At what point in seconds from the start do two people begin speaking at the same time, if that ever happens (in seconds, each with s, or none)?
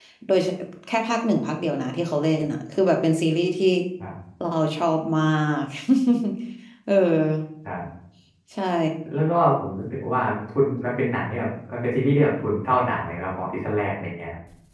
none